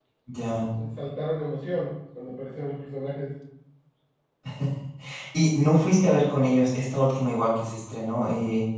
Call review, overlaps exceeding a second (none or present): none